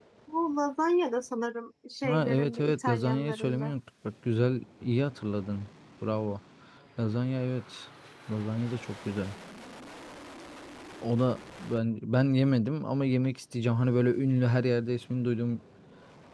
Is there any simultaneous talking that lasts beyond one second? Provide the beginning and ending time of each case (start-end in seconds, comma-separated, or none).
2.0-3.7